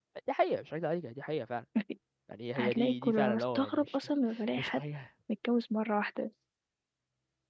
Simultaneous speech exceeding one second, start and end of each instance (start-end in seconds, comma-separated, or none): 2.6-3.9